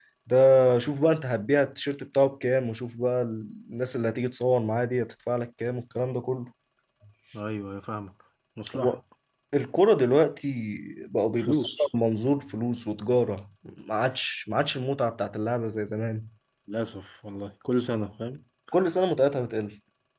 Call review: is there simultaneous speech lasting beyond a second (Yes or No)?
No